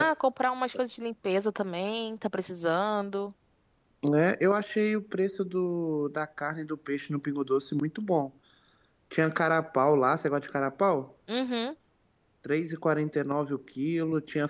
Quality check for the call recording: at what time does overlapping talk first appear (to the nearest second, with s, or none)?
none